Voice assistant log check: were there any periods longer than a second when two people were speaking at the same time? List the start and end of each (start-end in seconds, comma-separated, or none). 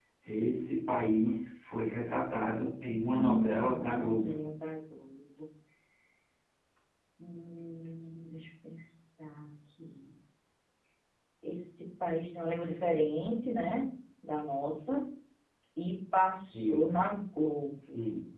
3.0-4.4